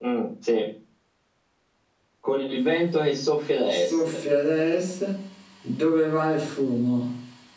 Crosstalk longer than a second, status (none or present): none